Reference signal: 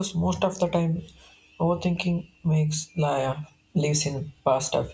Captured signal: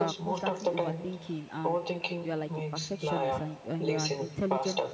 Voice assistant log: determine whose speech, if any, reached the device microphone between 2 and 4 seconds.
both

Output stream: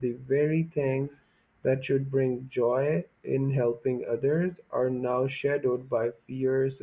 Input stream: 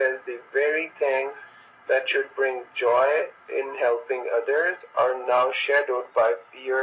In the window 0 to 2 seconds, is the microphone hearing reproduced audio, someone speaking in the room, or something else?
echo only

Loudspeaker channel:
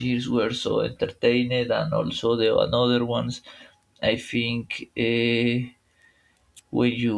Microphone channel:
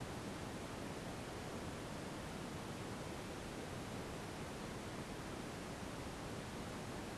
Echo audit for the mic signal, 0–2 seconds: neither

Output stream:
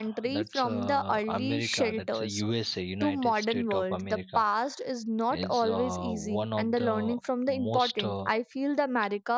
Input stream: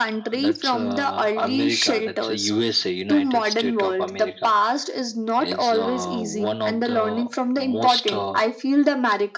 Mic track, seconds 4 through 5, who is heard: echo only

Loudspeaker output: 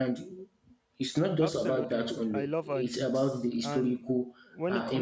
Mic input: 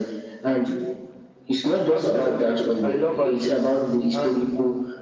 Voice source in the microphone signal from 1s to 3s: echo only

